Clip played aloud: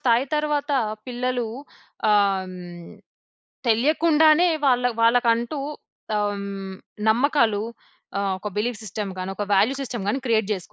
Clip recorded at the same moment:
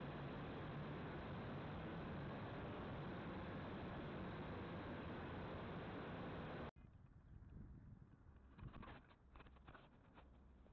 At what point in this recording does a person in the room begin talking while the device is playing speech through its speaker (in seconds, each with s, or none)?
none